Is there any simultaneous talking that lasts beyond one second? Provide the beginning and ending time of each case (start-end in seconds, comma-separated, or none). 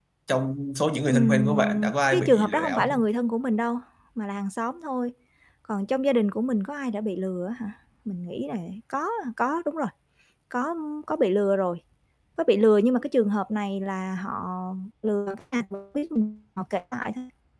1.1-3.0